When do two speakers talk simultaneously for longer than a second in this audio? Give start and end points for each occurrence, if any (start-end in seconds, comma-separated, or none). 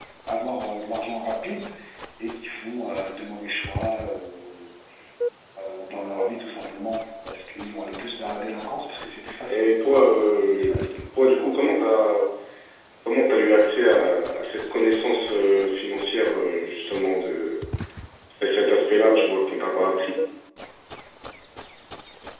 10.4-11.7